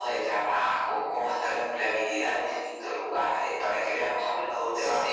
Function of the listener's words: taking over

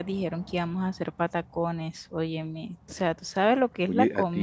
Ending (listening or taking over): taking over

